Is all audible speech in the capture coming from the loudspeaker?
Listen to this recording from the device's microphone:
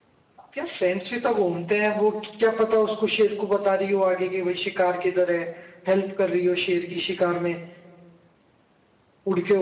No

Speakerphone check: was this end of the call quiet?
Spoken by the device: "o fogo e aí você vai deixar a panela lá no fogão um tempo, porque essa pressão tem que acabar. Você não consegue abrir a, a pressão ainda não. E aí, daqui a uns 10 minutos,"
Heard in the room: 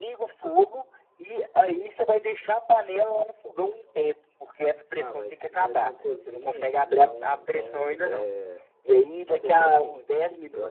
No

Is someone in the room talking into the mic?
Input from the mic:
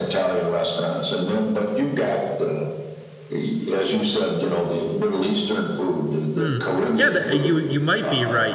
Yes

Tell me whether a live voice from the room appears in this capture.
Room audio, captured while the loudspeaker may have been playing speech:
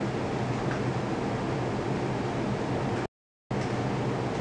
No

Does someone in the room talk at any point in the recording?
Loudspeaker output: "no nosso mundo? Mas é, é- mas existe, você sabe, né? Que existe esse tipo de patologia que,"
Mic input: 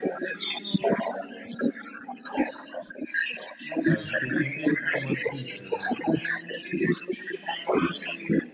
Yes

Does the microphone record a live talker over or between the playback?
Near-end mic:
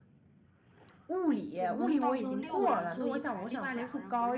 Yes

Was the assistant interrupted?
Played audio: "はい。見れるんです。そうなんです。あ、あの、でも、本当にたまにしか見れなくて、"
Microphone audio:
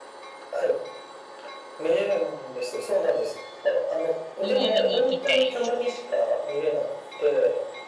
Yes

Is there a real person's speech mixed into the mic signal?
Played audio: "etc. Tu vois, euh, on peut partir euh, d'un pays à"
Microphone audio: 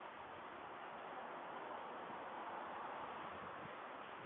No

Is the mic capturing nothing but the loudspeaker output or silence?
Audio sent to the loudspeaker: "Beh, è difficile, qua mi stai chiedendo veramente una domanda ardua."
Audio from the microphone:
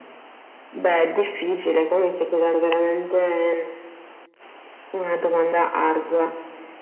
Yes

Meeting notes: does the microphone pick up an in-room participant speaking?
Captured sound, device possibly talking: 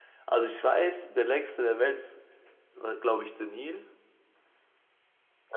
Yes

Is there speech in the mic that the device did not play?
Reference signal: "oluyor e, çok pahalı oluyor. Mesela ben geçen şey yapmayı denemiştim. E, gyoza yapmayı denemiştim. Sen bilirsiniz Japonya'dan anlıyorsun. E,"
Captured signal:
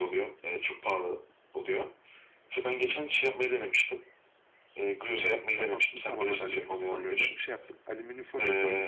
Yes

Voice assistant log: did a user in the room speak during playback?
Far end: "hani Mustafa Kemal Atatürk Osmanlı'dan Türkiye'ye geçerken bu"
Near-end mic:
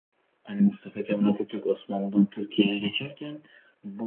No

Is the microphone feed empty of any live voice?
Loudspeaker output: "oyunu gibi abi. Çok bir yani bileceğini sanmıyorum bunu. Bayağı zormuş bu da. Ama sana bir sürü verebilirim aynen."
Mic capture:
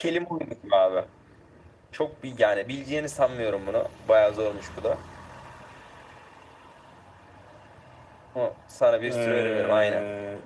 No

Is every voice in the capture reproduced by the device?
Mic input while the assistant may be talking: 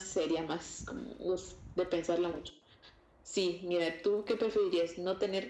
Yes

